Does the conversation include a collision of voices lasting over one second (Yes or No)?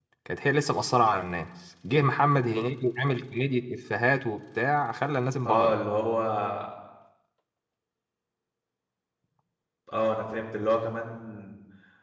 No